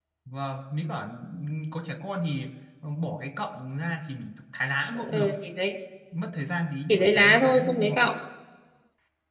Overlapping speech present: Yes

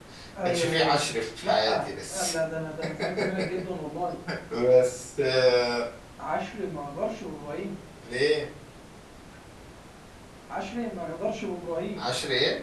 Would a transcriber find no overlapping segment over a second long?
Yes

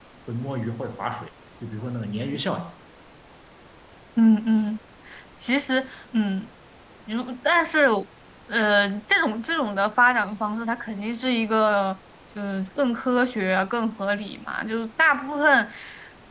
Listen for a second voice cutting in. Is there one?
No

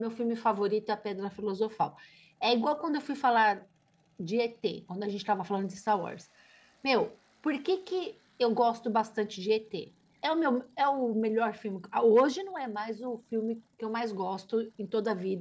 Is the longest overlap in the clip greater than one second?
No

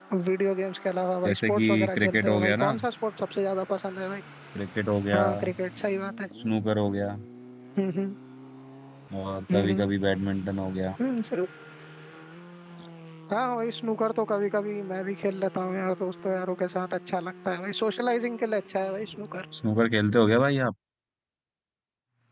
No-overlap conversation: No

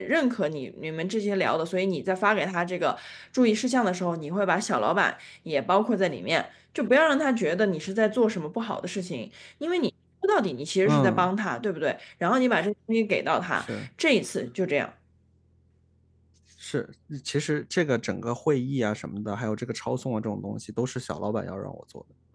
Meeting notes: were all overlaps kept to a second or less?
Yes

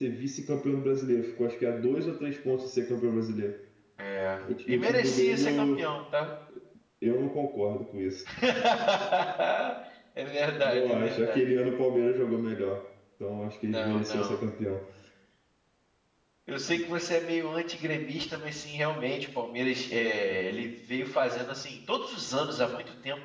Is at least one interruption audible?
Yes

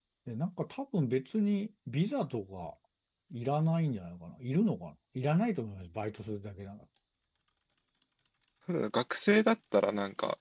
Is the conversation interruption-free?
Yes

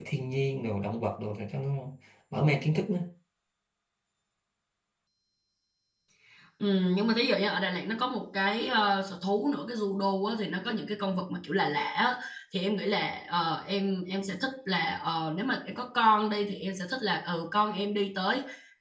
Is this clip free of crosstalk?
Yes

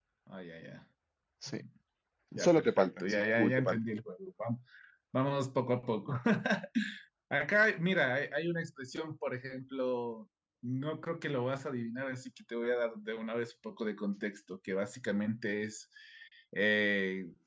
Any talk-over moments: Yes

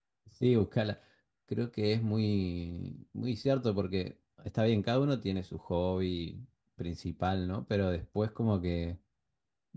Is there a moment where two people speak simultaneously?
No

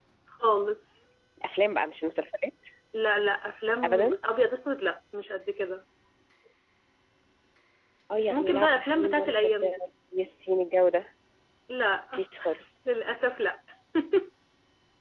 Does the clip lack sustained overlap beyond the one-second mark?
No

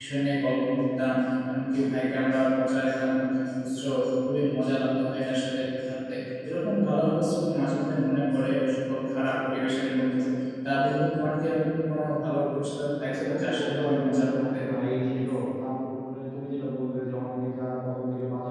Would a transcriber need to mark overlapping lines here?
Yes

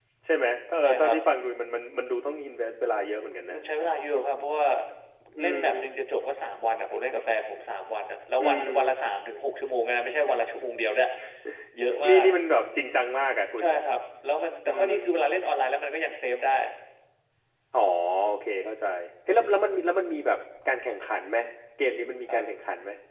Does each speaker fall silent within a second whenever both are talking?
Yes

